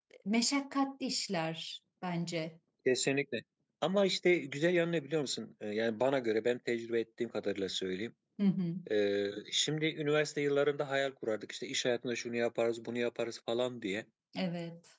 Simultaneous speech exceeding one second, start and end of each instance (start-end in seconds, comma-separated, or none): none